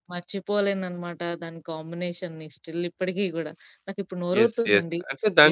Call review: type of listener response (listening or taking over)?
taking over